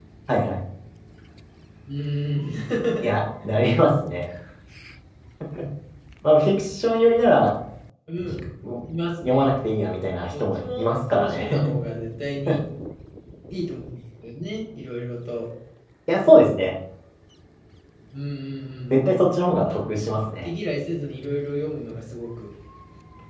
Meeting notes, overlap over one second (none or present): present